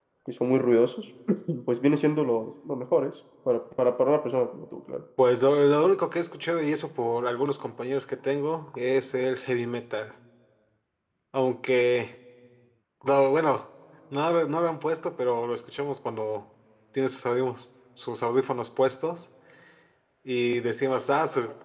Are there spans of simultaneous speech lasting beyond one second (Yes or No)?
No